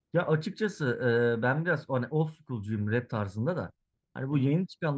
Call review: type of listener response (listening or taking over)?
listening